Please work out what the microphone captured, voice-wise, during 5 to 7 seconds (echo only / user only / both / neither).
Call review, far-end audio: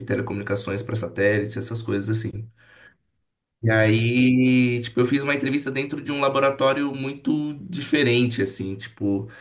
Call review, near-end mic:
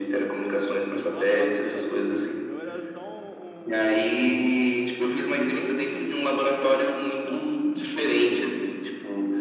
both